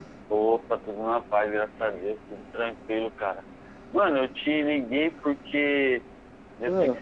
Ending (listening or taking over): listening